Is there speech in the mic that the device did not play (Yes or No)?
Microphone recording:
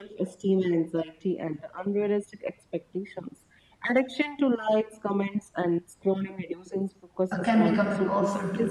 Yes